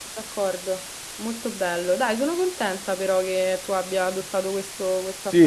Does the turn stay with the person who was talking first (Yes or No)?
No